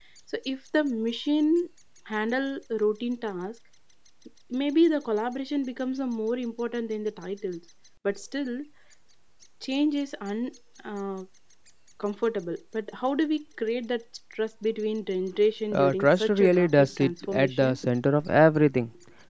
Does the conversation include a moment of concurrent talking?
Yes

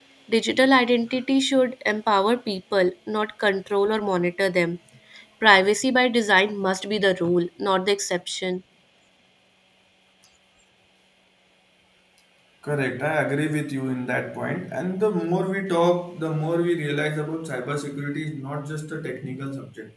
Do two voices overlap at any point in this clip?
No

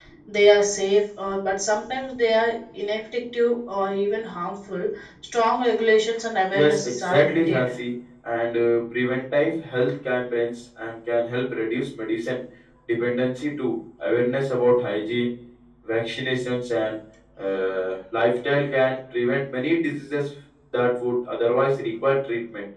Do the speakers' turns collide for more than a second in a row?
Yes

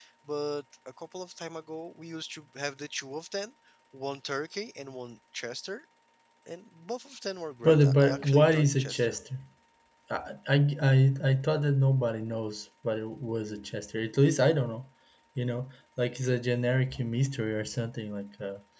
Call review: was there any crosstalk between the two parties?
Yes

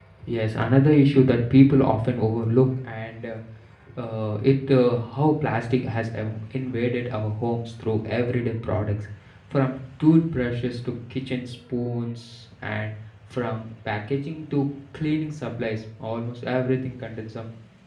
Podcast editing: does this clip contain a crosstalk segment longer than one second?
No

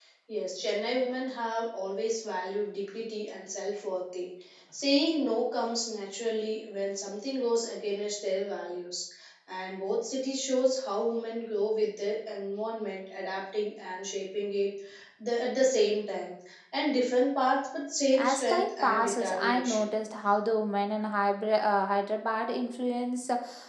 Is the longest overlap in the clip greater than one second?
Yes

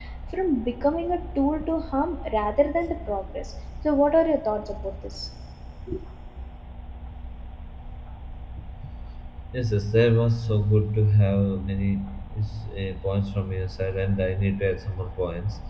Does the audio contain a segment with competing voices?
No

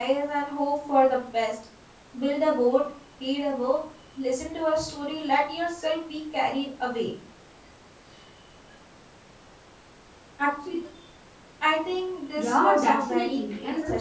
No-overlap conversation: No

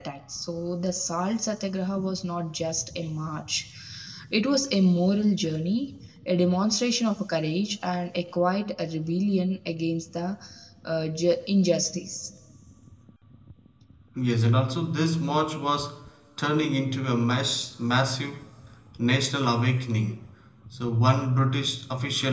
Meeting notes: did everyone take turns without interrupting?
Yes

